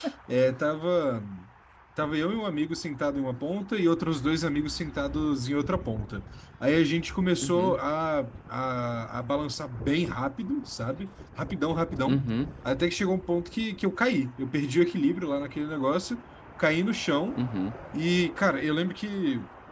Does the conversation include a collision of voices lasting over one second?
No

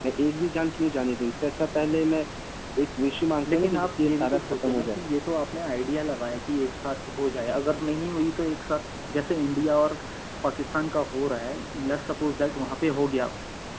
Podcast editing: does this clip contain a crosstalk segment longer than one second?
Yes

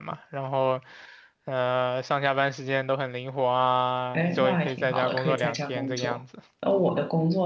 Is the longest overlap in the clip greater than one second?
Yes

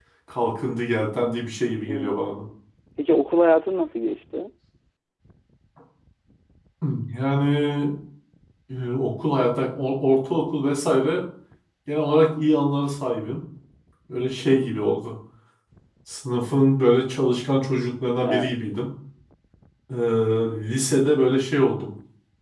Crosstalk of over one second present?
No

